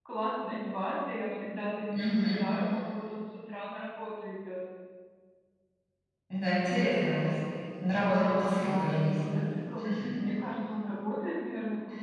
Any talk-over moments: Yes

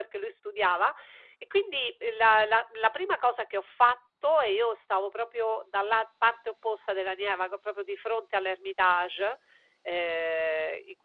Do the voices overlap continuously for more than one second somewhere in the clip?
No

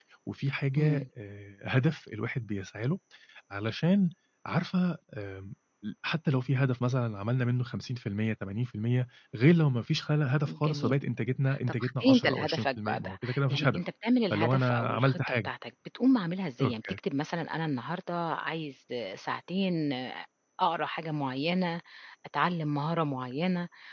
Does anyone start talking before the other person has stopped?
Yes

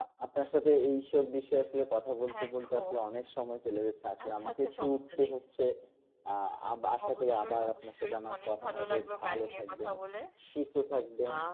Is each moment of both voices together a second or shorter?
No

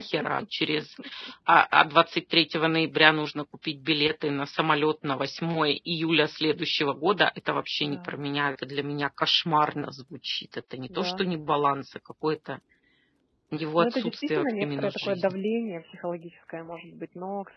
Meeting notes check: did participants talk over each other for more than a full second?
Yes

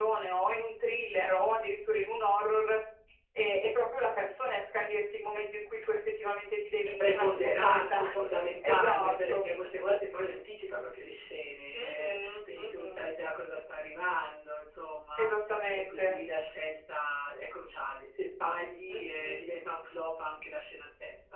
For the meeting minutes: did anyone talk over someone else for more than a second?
Yes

